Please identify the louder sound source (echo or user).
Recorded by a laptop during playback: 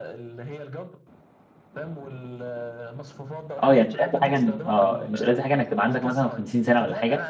user